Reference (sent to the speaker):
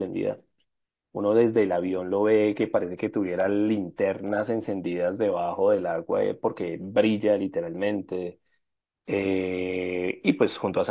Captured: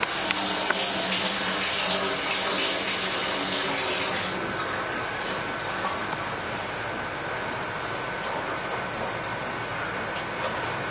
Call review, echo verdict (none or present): none